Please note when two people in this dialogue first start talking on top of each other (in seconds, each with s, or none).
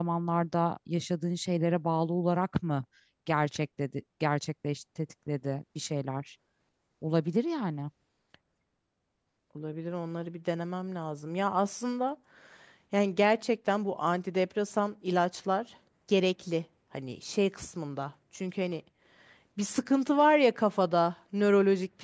none